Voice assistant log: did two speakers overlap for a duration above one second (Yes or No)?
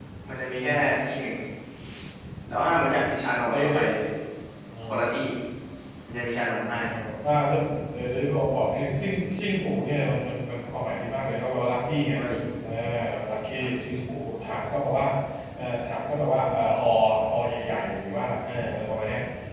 No